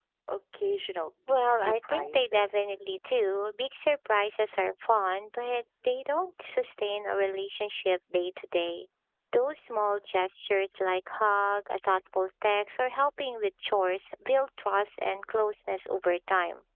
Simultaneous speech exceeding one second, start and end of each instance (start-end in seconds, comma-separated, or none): 1.3-2.5